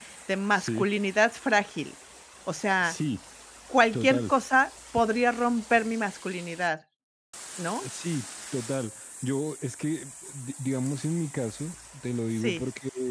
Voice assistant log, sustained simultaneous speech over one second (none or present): none